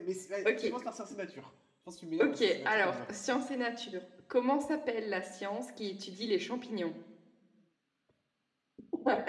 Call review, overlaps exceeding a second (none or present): present